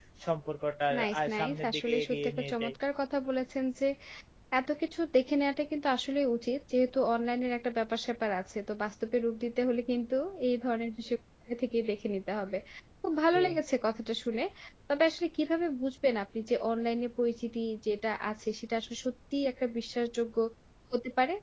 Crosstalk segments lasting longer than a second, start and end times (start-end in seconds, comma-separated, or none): 1.0-2.7